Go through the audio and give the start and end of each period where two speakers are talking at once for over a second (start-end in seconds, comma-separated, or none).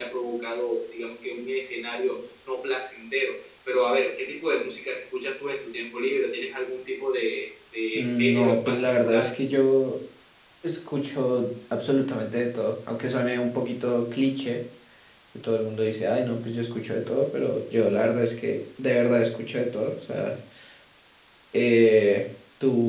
8.0-9.3